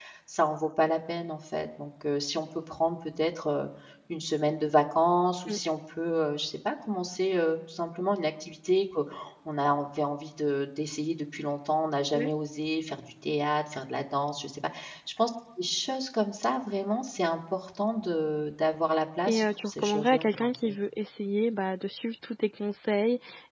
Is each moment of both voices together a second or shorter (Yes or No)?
No